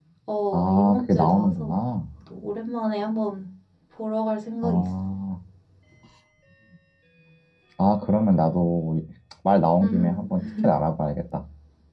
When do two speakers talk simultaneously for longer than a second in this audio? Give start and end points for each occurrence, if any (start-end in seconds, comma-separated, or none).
0.5-1.8